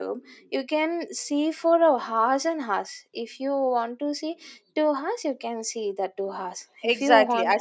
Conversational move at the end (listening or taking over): taking over